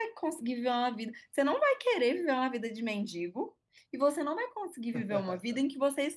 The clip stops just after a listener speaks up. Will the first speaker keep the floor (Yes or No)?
Yes